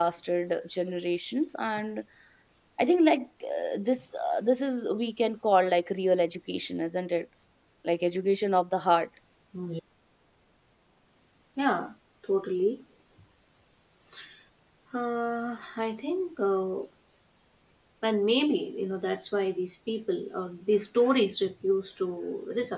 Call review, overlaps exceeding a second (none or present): none